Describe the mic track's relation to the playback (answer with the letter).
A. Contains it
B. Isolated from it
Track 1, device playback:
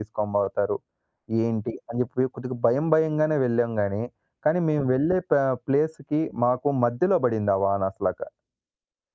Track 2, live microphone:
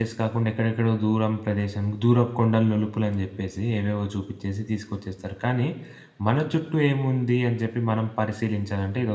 B